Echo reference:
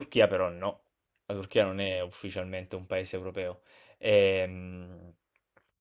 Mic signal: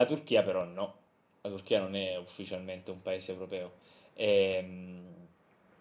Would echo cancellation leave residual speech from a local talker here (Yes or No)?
No